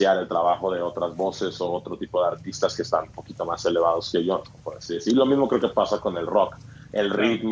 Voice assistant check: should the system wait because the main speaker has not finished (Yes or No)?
Yes